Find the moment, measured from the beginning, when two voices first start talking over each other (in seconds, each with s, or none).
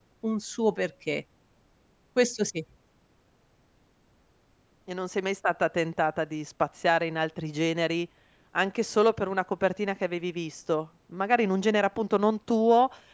none